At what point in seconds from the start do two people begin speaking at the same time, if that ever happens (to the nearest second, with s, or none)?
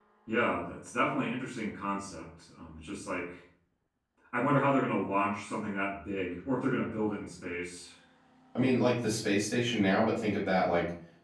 none